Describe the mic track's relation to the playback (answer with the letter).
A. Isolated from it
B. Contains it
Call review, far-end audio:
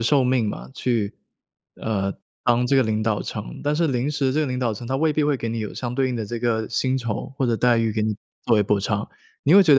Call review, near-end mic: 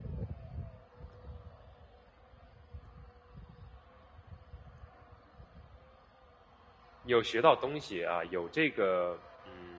A